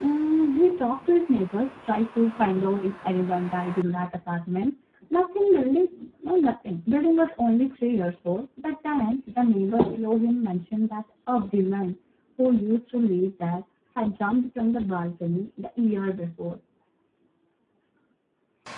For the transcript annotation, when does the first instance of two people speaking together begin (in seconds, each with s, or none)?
none